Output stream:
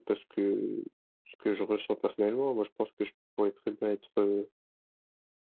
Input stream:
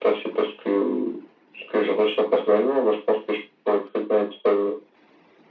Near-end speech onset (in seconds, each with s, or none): none